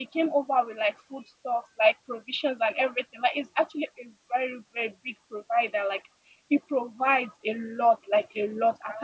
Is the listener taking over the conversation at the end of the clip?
No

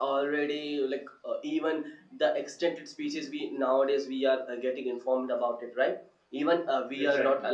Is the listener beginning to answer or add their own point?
No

